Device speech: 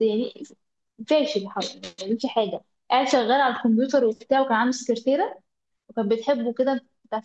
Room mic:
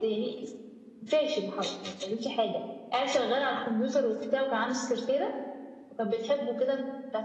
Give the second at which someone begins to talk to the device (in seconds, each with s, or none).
none